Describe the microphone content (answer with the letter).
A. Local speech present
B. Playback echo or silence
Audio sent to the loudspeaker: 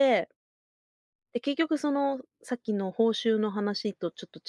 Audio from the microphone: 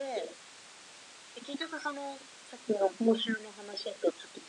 B